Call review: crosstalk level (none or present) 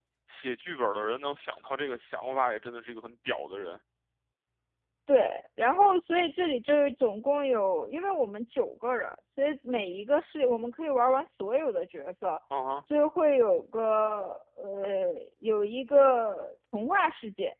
none